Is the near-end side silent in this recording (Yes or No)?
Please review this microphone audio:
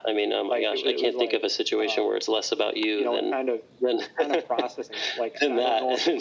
Yes